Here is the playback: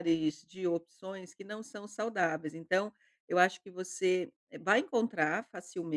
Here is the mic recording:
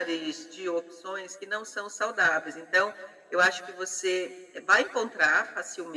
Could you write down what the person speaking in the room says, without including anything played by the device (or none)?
none